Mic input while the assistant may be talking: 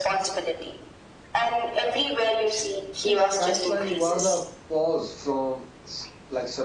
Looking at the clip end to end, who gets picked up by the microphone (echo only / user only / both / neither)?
both